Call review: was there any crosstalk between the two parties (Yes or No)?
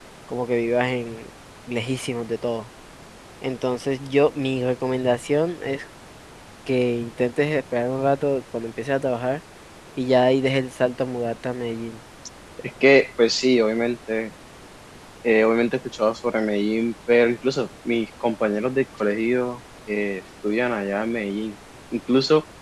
No